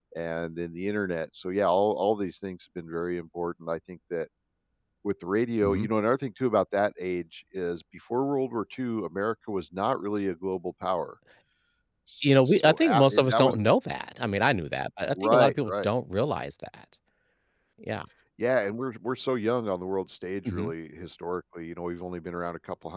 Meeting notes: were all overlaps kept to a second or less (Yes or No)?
No